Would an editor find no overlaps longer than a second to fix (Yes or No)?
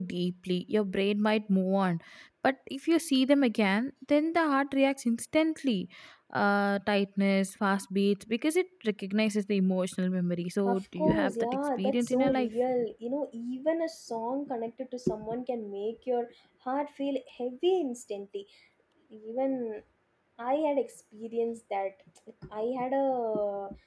No